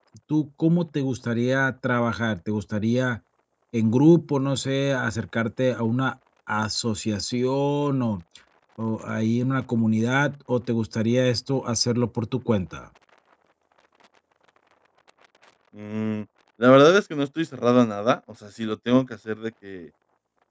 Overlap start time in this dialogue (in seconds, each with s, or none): none